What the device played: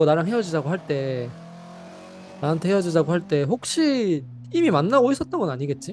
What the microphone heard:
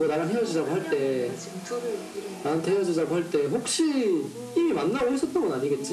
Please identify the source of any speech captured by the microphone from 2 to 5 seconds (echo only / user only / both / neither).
both